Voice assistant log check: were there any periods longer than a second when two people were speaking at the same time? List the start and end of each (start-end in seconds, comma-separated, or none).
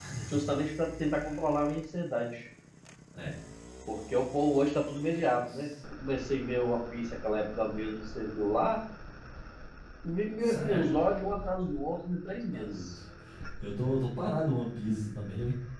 none